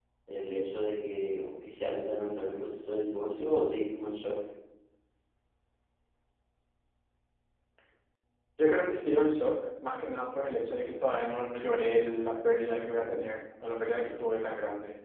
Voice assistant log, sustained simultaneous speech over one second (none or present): none